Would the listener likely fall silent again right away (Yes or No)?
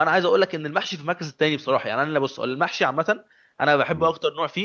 Yes